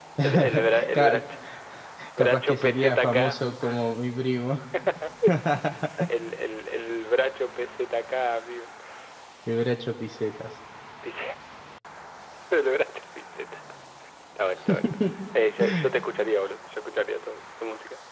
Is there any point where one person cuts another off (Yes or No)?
Yes